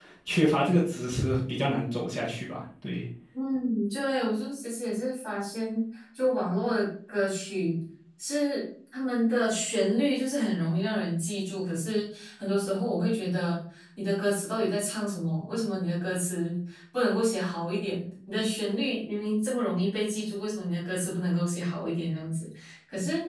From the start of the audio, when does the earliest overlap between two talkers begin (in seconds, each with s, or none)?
none